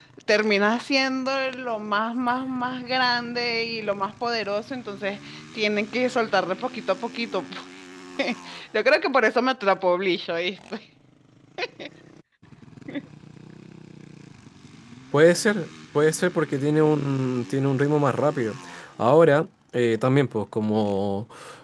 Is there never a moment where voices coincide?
Yes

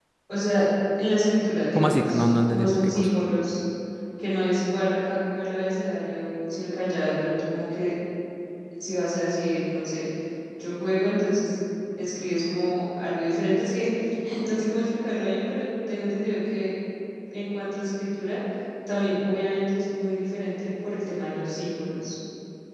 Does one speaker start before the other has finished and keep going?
Yes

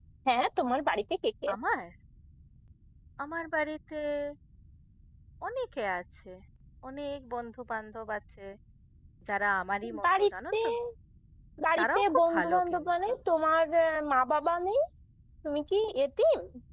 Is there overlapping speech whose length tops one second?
Yes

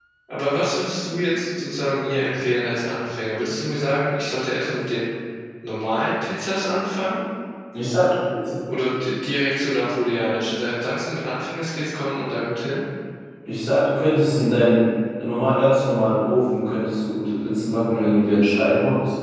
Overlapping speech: No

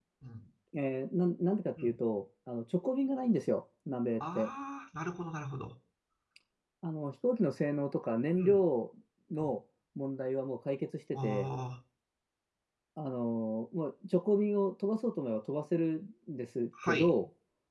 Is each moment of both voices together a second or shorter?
Yes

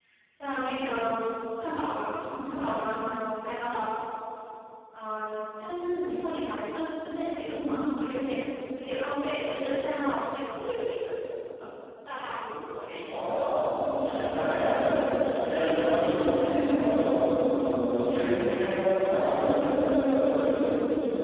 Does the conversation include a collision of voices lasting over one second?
No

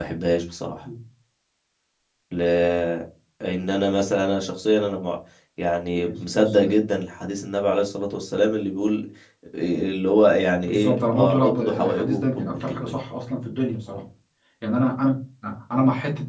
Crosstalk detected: Yes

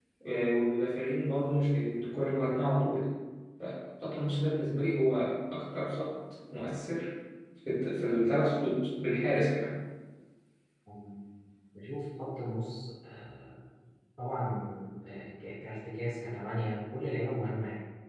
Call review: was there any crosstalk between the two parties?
No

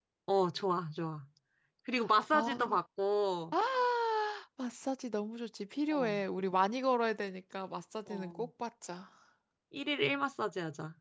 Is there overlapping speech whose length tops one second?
No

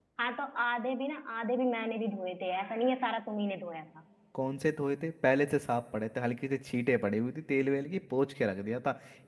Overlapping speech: No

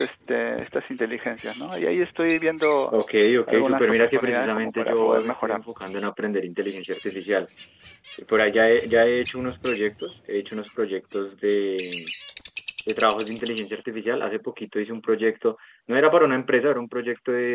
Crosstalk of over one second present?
Yes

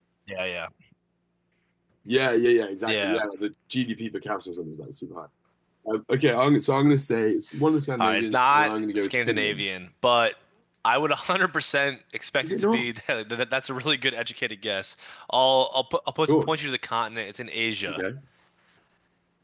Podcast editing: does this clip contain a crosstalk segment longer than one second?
Yes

